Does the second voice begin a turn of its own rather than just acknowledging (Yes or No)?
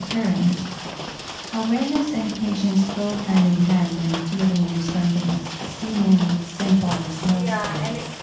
Yes